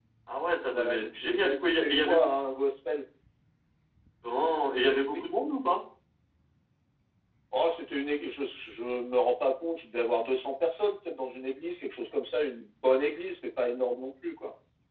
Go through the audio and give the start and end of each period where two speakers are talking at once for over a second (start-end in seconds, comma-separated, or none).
0.7-2.3